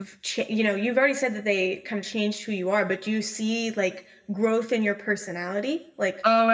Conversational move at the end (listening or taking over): taking over